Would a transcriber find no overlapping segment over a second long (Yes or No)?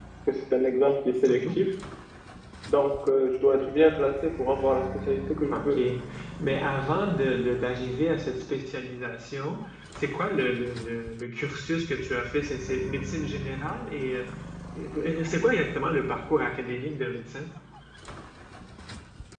Yes